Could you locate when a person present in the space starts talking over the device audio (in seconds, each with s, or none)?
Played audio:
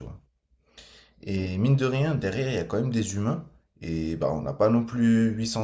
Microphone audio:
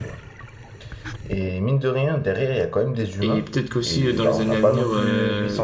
3.2 s